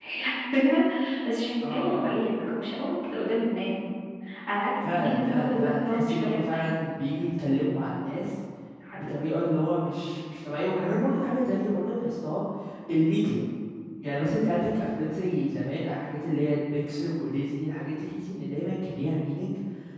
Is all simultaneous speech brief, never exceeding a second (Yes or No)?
No